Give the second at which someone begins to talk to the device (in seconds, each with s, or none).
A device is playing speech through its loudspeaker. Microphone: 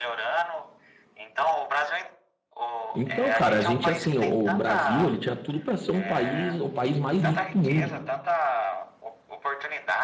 2.9 s